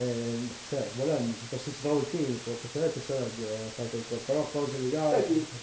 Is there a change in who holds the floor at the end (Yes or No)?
Yes